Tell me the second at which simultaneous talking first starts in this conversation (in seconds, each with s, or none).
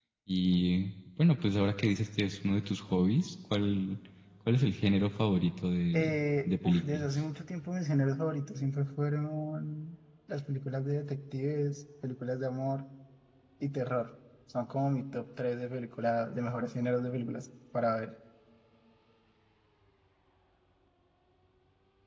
5.9 s